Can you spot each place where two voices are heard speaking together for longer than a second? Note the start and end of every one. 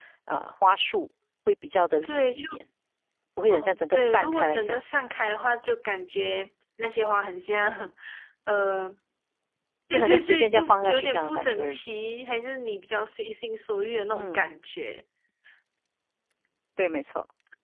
3.5-4.8, 9.9-11.8

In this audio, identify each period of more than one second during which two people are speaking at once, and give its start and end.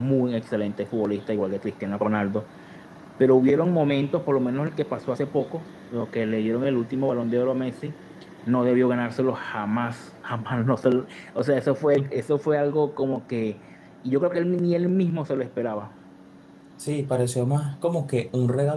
none

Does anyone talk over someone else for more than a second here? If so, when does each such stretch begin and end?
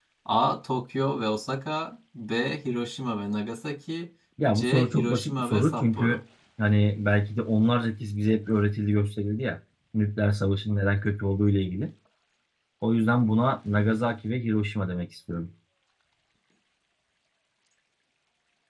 4.5-6.2

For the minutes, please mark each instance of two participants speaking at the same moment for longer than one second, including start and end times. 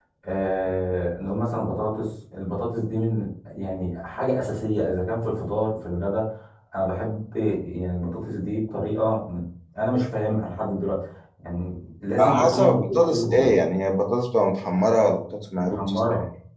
12.2-13.5

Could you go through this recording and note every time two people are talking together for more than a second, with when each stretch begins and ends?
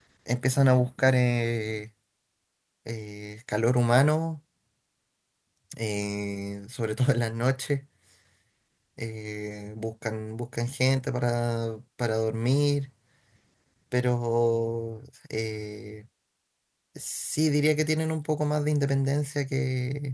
none

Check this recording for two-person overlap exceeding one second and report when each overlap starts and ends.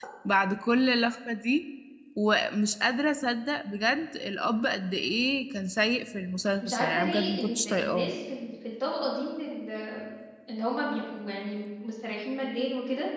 6.6-8.1

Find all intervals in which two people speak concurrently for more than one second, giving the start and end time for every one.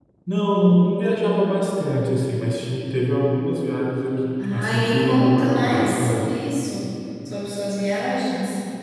4.4-6.2

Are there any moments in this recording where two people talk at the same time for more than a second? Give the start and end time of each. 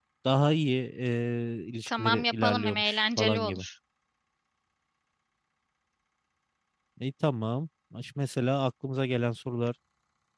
1.9-3.6

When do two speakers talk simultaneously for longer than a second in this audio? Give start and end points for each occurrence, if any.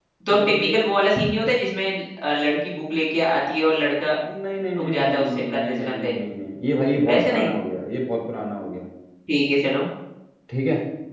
4.8-6.1

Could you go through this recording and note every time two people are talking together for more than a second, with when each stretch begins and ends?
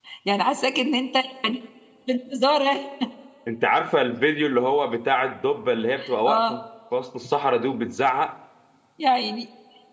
none

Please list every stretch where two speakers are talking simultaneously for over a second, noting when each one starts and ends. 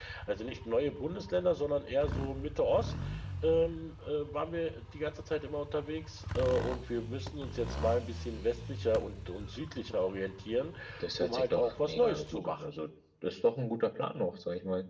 11.2-12.7

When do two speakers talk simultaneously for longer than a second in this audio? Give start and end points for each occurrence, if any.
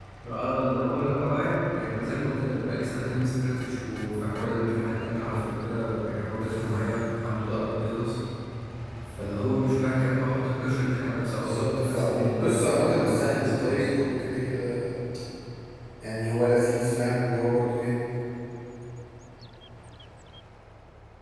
11.4-13.9

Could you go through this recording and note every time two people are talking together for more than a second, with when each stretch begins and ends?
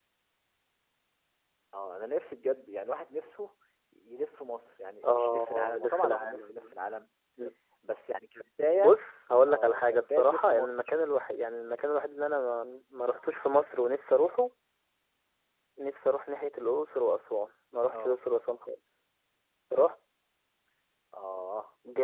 5.0-6.8, 9.5-10.9

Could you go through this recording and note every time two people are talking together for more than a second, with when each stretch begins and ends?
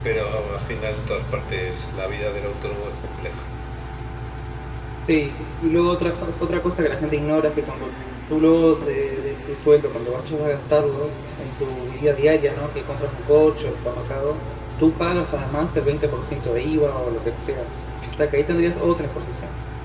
none

